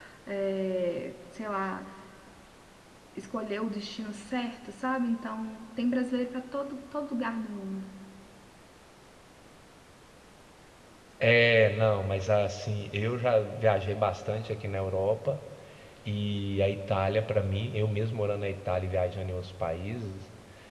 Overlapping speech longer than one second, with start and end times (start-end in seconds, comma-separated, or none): none